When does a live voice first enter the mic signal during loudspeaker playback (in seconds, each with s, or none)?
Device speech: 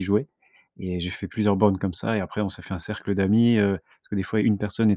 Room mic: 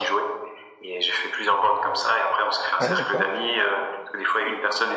2.8 s